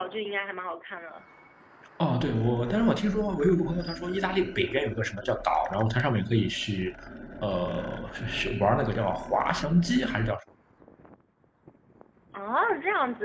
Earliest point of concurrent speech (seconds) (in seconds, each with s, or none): none